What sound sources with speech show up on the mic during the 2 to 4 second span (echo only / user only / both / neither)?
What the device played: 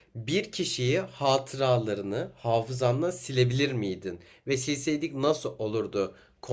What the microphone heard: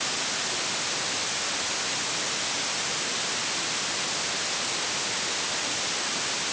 neither